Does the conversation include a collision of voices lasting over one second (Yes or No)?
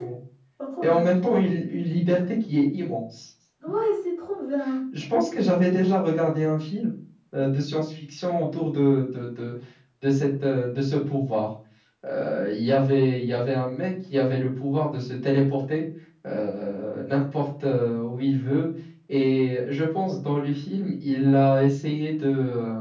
No